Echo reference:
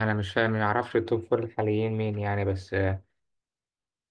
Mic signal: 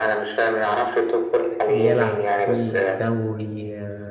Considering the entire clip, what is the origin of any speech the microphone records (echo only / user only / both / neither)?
both